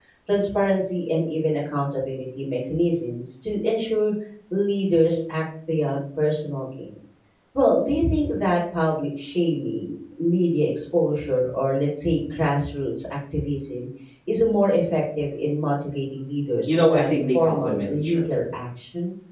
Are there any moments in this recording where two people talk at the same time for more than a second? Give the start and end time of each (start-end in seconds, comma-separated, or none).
16.7-18.5